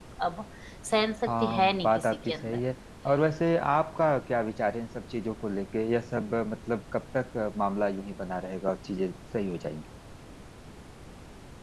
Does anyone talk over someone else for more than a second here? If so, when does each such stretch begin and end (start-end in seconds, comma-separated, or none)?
1.3-2.6